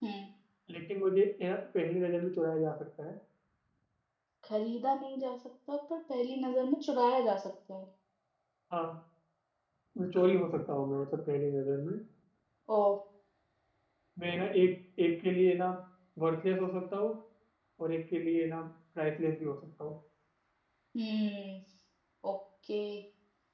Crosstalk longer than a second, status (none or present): none